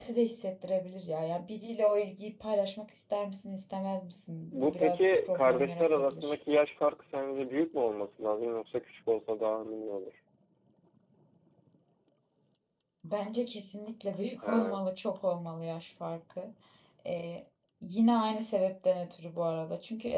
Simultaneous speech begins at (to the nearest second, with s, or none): 5 s